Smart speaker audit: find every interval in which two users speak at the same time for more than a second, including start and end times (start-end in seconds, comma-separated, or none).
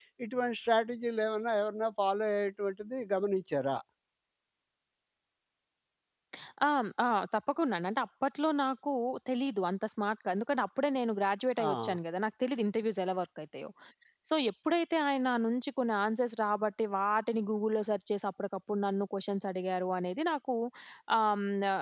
none